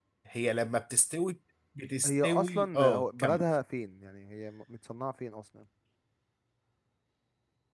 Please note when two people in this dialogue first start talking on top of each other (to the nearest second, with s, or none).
2 s